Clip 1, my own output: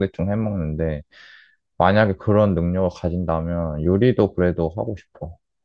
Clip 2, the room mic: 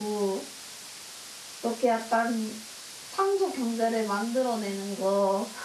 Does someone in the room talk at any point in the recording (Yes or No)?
Yes